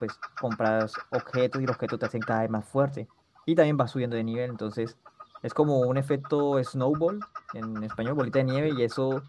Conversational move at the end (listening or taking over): listening